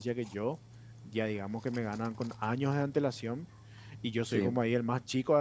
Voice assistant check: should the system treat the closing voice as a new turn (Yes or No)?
No